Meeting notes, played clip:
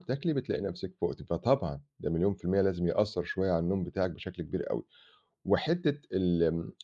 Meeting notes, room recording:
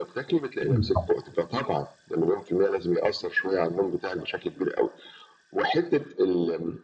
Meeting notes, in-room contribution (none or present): present